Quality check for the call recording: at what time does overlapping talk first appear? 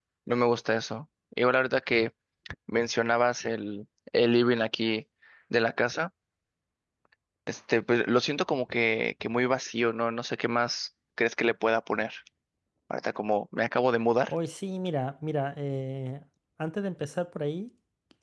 none

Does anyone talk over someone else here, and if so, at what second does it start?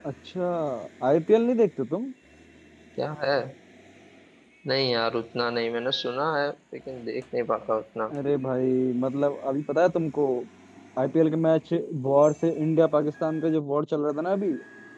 none

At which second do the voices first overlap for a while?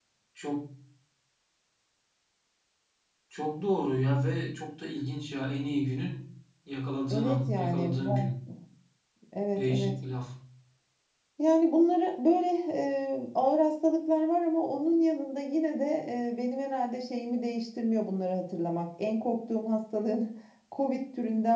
7.1 s

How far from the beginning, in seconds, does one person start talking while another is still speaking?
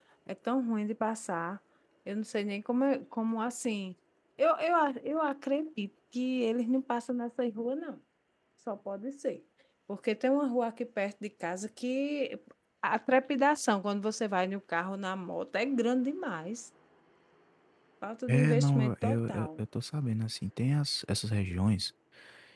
18.3 s

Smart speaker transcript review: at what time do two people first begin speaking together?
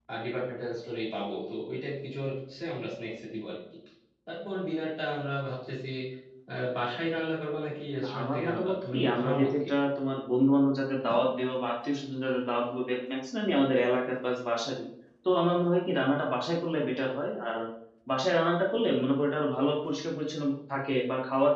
8.0 s

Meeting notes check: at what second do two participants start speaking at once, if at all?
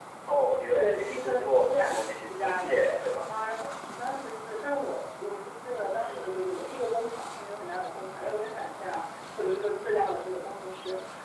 0.7 s

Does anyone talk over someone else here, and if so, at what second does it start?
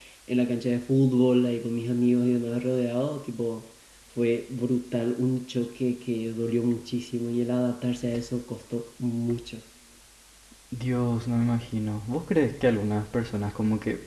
none

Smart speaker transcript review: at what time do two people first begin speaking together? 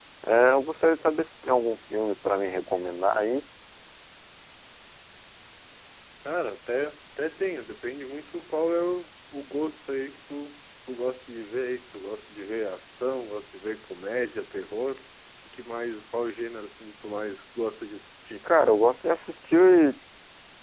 none

